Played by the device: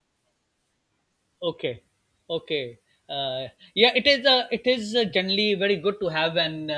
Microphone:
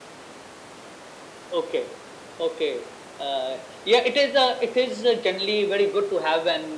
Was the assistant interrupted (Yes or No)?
No